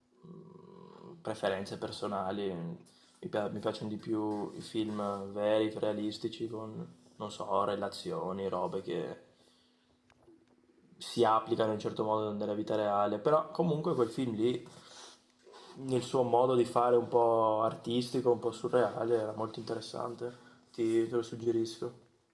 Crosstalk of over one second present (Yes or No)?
No